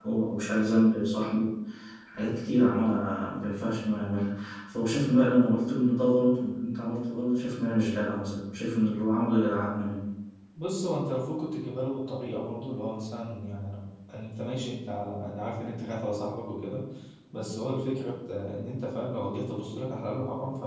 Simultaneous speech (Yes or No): No